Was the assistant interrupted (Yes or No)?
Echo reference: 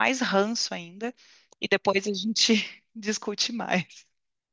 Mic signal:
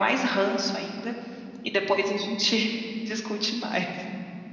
No